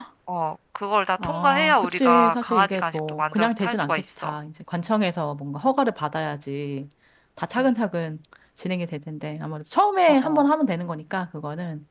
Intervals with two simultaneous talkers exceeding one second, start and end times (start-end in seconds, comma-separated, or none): 1.2-4.3